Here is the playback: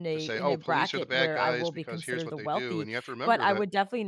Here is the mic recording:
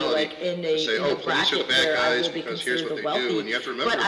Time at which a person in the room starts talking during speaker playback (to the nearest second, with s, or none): none